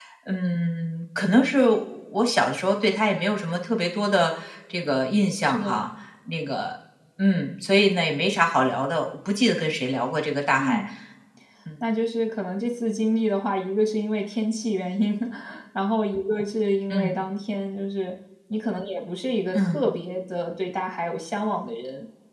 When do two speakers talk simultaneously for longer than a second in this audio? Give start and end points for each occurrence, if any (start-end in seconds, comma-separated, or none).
none